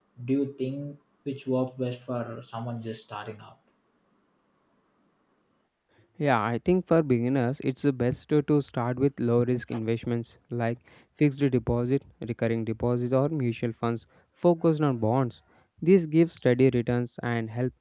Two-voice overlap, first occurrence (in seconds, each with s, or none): none